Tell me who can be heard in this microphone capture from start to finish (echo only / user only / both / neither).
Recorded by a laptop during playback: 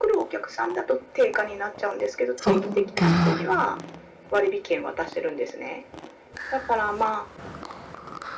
both